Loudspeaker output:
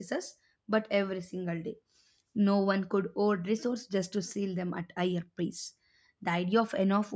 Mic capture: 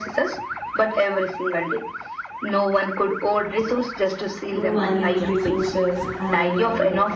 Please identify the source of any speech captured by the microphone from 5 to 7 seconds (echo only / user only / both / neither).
both